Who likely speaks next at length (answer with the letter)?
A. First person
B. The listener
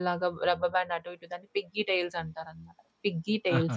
A